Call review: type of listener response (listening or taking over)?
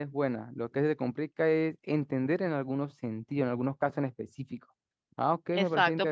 taking over